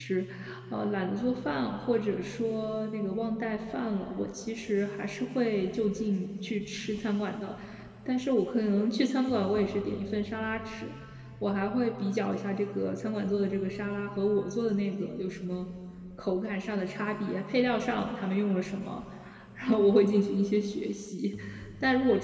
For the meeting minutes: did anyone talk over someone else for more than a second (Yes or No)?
No